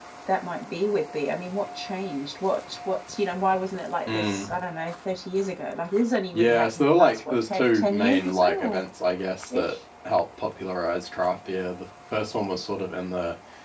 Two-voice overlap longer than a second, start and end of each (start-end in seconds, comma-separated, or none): 6.3-8.8